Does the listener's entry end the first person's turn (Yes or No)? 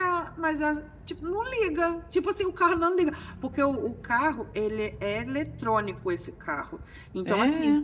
No